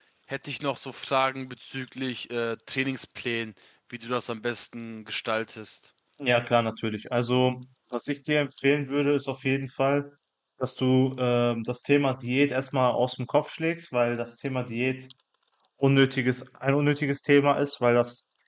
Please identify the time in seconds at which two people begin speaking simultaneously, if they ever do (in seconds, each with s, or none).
none